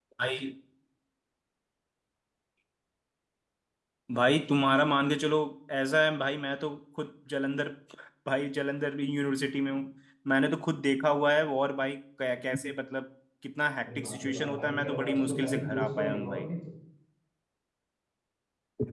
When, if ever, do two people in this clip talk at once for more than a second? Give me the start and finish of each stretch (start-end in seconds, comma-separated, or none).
13.8-16.5